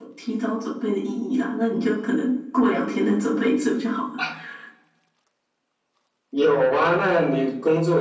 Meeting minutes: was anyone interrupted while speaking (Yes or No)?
No